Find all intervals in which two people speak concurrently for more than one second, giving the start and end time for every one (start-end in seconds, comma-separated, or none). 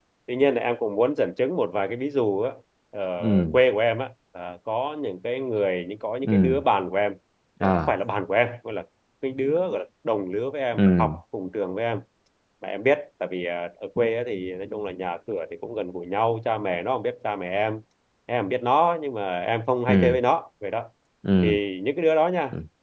none